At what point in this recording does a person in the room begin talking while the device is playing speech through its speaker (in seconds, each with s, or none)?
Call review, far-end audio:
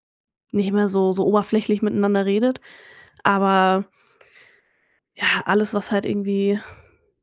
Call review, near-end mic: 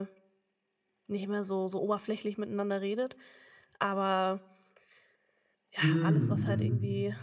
5.8 s